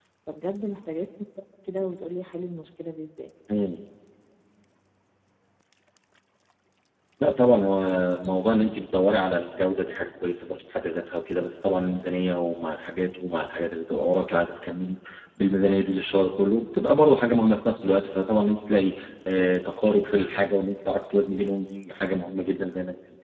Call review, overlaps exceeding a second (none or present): none